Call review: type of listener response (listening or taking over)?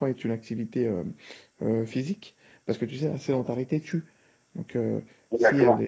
listening